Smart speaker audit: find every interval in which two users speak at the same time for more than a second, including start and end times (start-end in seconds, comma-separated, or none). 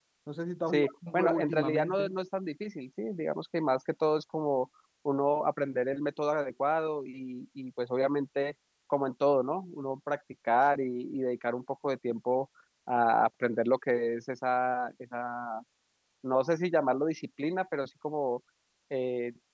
0.7-2.1